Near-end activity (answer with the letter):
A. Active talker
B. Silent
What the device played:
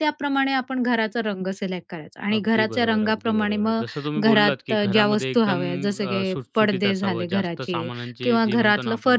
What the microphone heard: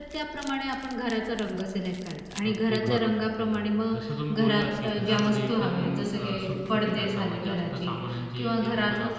A